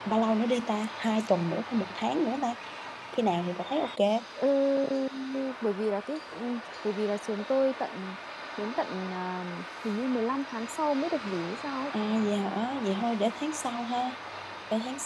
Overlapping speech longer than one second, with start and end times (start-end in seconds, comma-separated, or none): none